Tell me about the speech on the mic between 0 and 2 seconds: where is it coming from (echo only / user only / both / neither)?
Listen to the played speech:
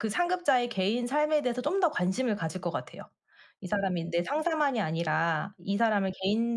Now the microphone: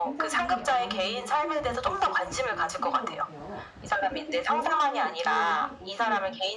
both